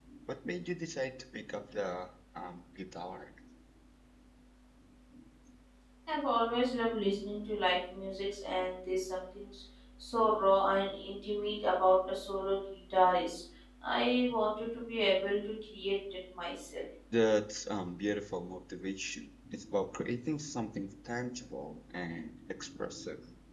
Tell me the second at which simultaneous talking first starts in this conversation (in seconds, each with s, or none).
none